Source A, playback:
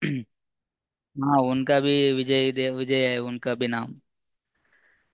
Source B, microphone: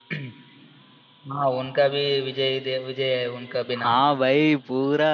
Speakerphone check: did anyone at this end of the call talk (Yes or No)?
Yes